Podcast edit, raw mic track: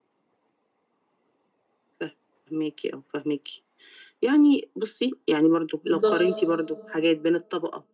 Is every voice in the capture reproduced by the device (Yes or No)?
No